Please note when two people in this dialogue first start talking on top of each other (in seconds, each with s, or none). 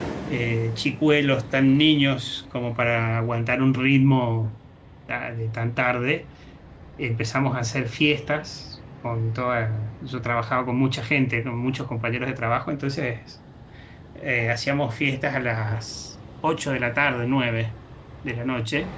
none